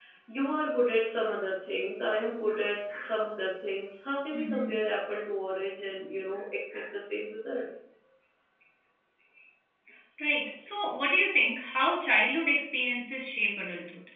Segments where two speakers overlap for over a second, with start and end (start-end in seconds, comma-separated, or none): none